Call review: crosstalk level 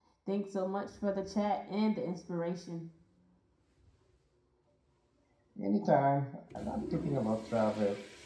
none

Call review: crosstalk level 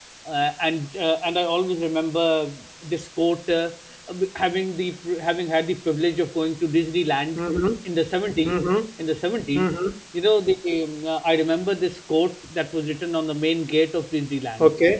none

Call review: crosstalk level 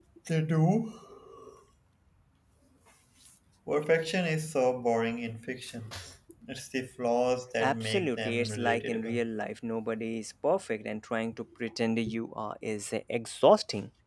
present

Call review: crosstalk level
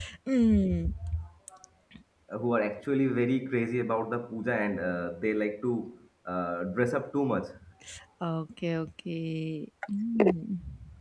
none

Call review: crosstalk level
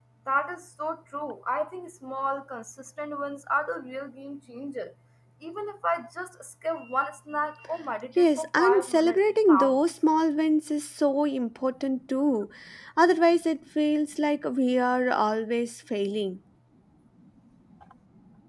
present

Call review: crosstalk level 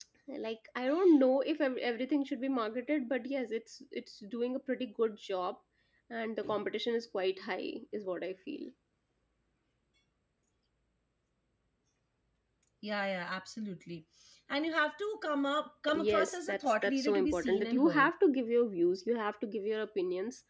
present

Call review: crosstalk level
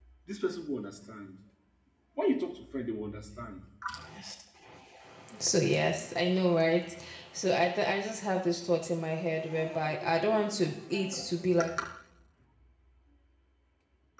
none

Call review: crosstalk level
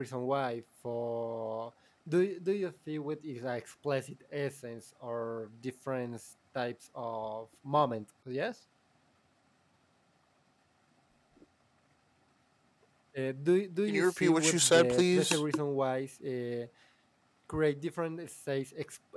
present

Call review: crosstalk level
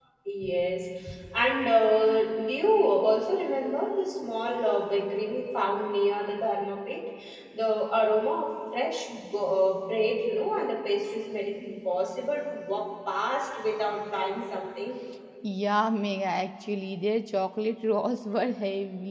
none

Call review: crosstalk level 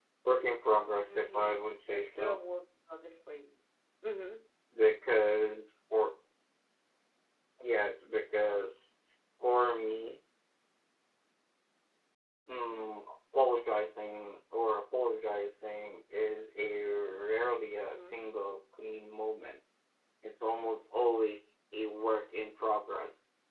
present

